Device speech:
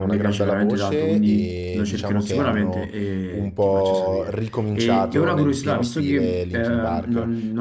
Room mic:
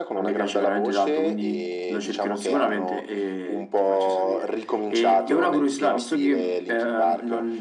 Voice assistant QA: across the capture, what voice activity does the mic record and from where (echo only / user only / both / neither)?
echo only